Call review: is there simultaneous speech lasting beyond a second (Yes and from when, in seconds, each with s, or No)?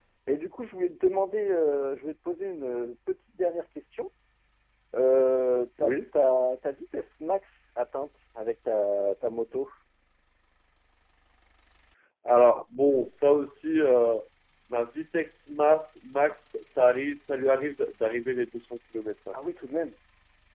No